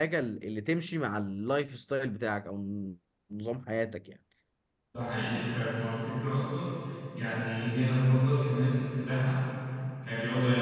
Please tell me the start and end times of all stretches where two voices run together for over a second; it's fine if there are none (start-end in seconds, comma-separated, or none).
none